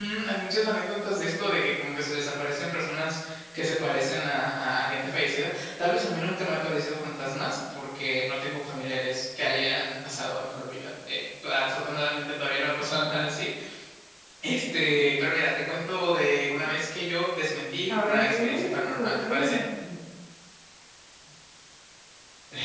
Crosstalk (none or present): present